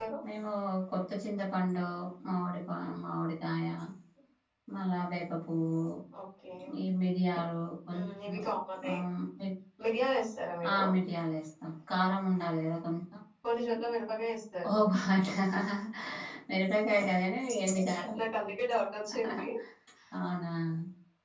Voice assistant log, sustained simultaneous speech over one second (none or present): none